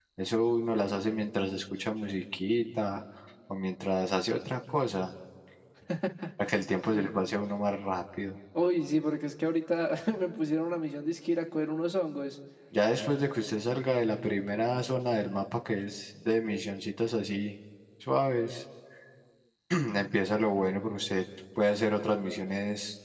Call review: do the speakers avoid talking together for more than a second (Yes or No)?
Yes